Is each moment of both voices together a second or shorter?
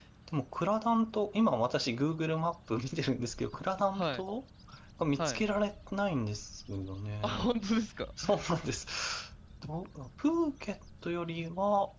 Yes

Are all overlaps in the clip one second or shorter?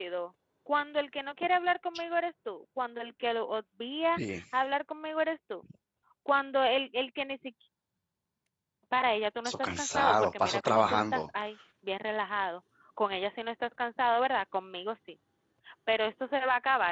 No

